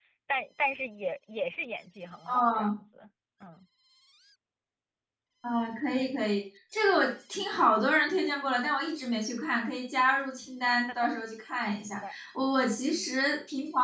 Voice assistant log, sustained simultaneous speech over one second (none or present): none